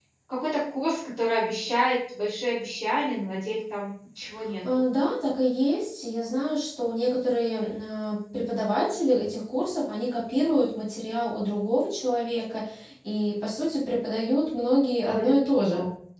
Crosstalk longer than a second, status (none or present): none